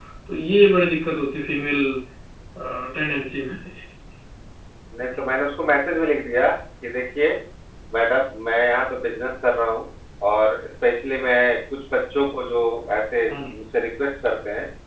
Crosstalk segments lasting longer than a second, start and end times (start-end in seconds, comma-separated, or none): none